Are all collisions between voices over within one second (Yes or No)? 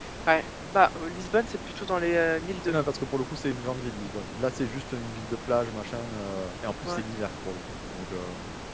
Yes